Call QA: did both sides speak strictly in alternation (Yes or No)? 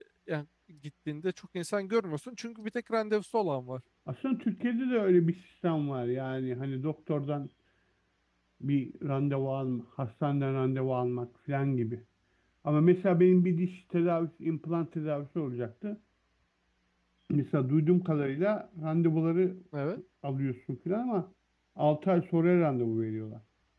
Yes